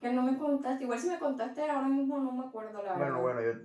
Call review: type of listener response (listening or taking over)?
taking over